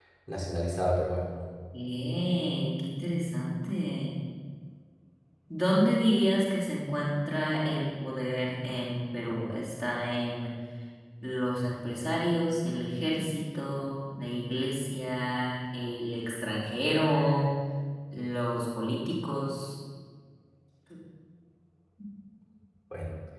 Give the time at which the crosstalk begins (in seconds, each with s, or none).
none